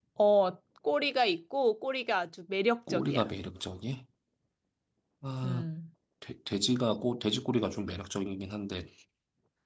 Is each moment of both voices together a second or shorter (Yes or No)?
Yes